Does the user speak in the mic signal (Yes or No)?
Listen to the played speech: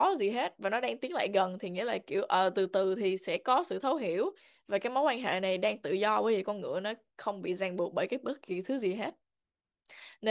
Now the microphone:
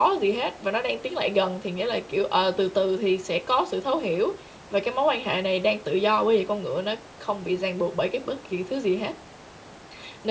No